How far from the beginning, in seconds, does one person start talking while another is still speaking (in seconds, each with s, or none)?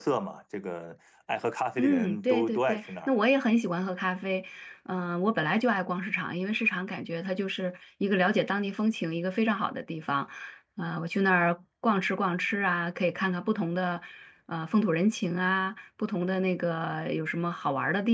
1.8 s